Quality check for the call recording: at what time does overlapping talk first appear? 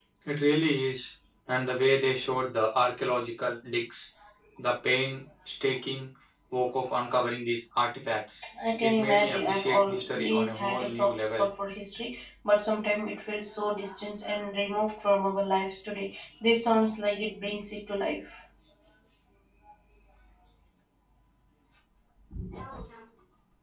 8.8 s

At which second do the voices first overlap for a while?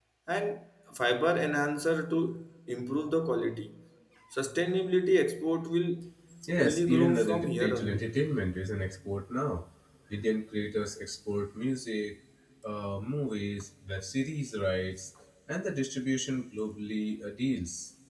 6.6 s

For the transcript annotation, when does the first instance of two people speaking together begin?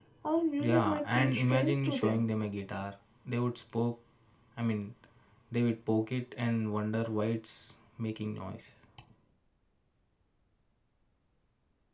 0.6 s

